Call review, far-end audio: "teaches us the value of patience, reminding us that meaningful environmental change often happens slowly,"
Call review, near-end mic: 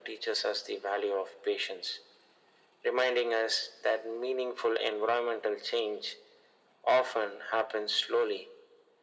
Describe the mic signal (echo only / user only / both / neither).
echo only